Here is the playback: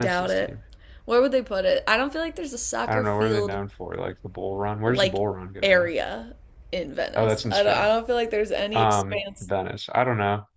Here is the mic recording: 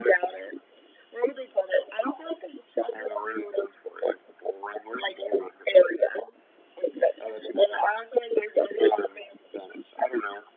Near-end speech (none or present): none